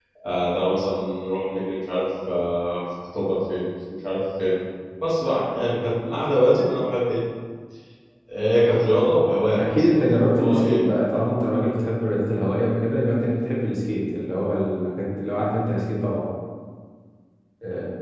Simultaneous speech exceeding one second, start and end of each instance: 9.6-10.8

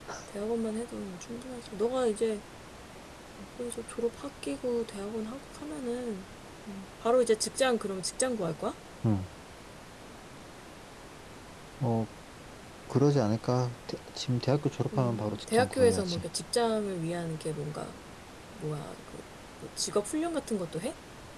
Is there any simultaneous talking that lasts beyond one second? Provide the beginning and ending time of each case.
14.9-16.2

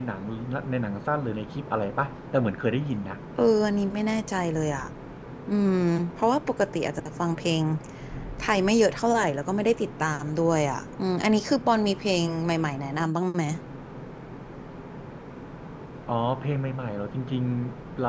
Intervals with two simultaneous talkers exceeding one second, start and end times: none

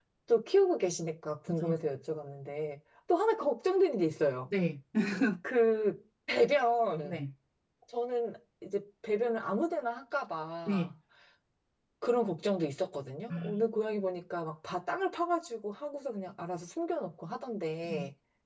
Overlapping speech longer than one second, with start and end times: none

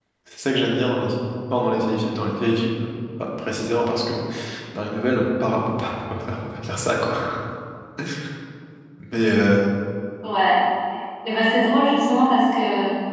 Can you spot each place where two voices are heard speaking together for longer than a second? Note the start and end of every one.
none

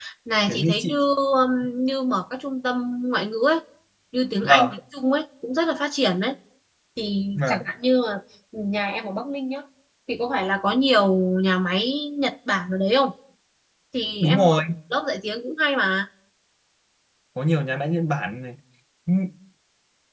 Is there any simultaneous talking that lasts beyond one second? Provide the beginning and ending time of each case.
none

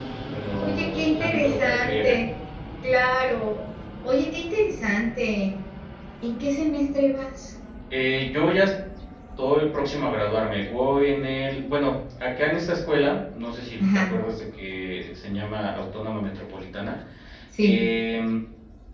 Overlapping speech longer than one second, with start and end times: 0.6-2.1

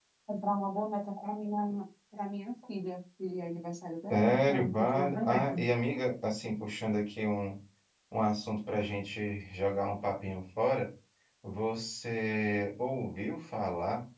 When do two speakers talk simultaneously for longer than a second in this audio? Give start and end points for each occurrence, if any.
4.1-5.6

